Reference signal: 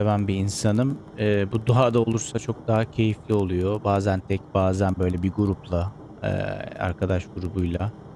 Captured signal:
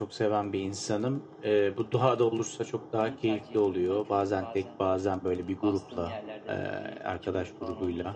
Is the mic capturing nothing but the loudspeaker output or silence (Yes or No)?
No